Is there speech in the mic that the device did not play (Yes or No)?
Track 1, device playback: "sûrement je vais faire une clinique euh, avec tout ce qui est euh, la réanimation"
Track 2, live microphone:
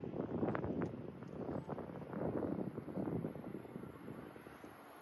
No